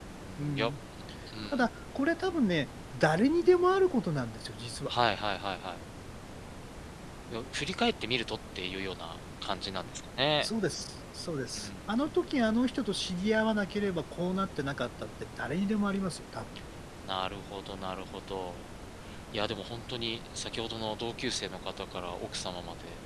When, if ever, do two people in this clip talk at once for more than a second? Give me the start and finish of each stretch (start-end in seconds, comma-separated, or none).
none